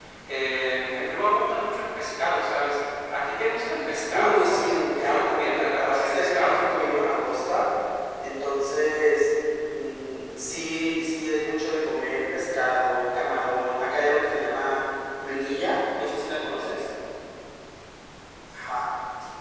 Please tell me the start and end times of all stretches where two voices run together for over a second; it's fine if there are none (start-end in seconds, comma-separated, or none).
4.1-6.6